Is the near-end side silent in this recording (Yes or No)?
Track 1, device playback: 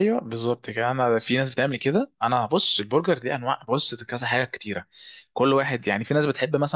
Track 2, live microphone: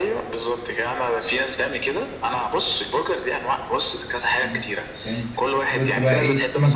No